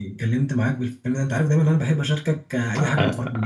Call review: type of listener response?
taking over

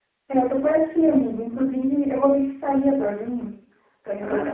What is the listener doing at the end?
listening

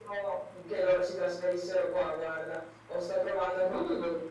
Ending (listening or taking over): listening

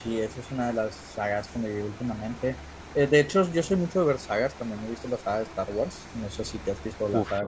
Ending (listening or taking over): taking over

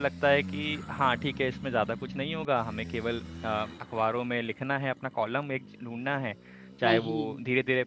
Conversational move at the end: listening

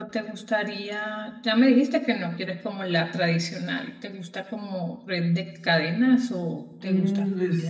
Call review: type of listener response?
taking over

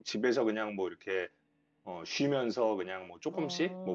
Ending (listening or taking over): listening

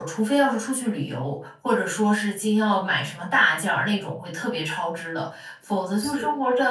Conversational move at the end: listening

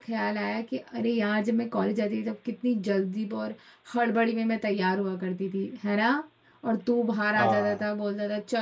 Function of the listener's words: listening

